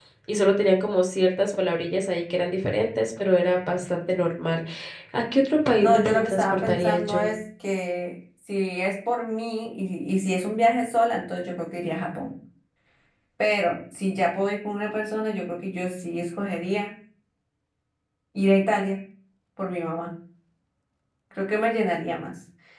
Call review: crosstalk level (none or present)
present